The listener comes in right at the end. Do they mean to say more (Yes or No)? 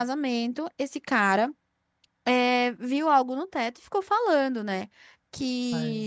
No